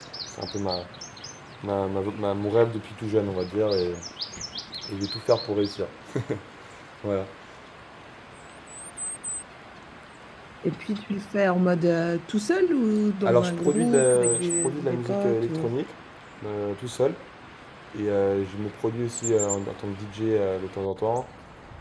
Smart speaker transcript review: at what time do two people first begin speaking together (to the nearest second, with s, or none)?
13 s